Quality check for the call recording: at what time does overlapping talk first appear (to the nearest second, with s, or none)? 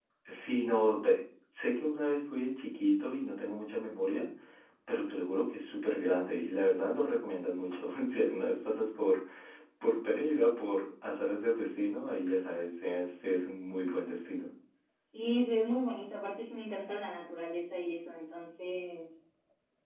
none